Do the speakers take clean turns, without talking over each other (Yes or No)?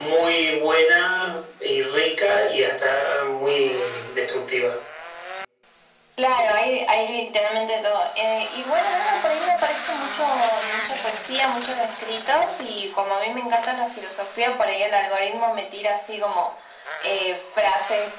Yes